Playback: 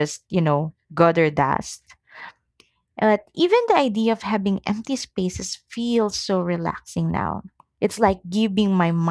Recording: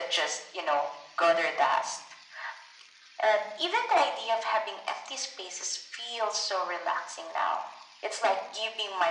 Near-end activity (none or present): none